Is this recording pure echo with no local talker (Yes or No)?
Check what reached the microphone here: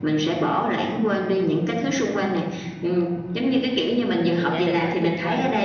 No